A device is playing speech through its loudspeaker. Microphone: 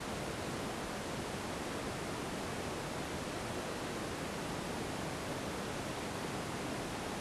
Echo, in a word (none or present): none